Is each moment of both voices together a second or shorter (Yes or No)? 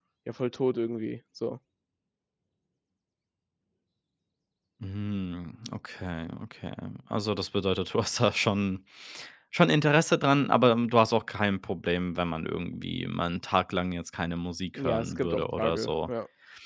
No